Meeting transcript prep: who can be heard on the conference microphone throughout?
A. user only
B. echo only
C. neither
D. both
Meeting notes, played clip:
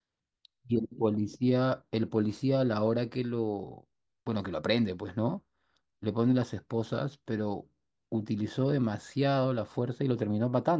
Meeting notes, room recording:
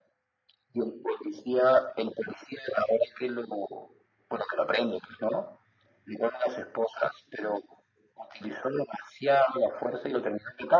B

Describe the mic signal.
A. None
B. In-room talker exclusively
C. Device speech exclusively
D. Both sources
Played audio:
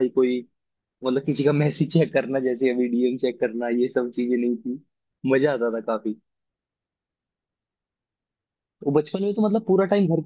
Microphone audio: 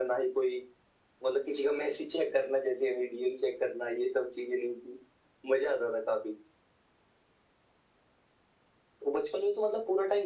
C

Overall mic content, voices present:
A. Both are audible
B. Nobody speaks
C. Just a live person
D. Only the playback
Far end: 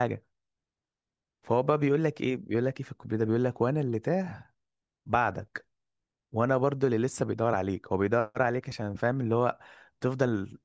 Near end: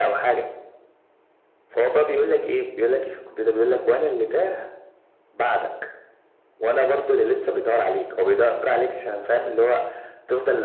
D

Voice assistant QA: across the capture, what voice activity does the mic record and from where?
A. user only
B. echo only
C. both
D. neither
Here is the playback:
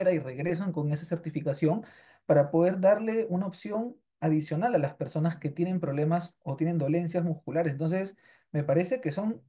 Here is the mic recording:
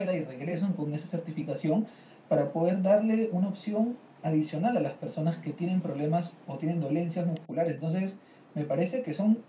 B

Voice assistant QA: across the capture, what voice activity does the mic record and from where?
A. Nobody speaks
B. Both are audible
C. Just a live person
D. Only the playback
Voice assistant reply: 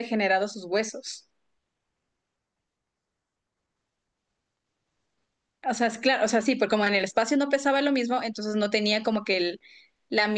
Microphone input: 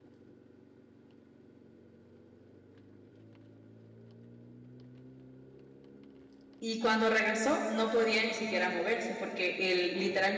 C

